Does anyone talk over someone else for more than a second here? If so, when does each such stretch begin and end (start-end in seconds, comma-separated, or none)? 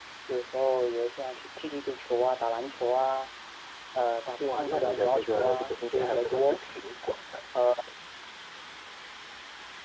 4.4-6.6